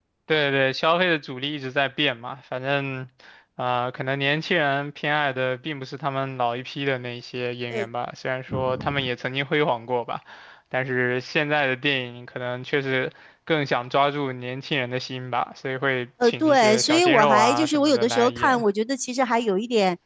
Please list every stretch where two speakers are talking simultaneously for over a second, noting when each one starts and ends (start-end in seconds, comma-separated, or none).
16.2-18.6